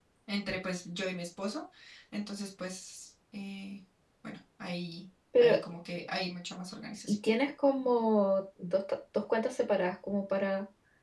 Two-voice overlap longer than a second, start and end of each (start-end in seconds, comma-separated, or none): none